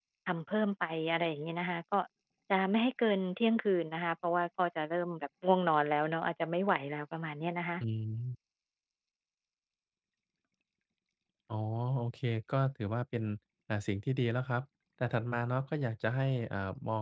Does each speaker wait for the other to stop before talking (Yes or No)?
Yes